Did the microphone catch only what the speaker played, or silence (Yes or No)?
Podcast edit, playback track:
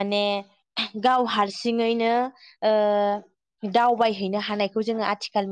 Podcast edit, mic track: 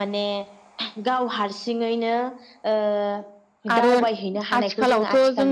No